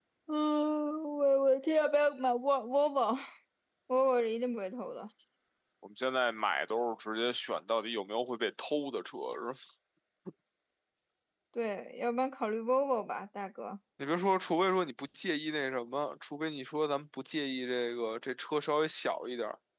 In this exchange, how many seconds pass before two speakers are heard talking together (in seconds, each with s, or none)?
none